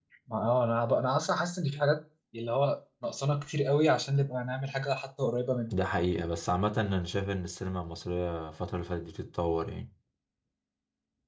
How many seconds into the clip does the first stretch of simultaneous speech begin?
none

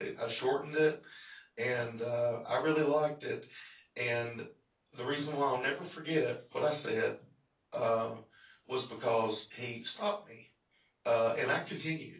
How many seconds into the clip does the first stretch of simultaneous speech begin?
none

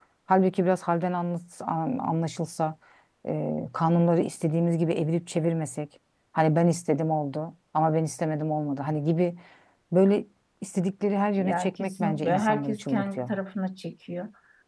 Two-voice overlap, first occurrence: 11 s

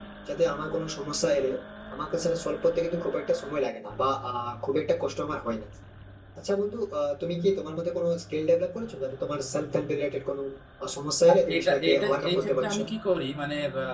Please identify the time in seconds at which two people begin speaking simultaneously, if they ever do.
12 s

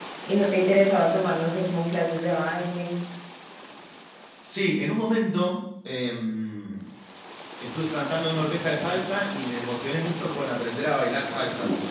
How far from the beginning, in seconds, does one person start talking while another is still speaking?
none

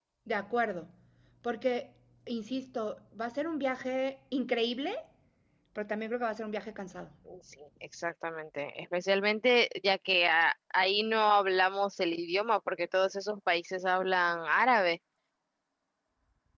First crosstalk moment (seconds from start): none

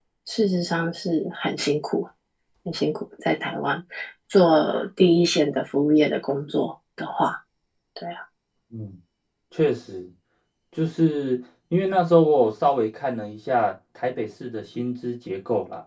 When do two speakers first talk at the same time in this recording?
none

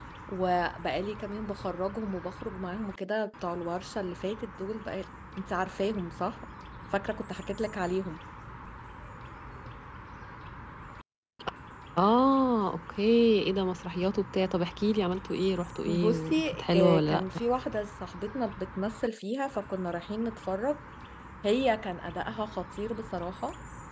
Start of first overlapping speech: 16 s

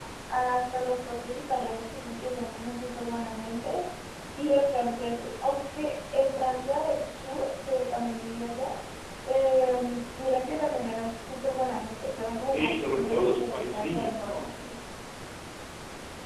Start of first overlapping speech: 13 s

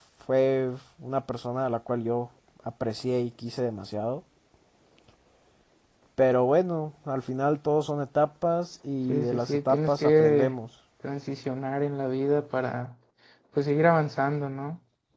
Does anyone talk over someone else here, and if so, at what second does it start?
9 s

